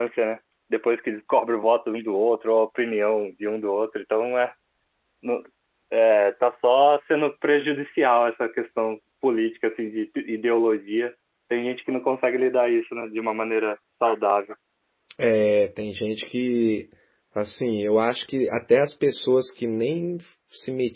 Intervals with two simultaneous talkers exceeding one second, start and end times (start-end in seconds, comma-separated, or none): none